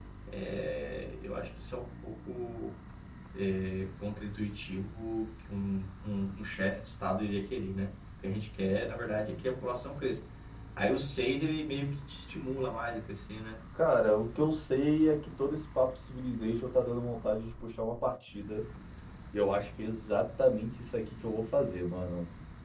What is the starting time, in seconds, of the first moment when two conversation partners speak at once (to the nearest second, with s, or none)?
none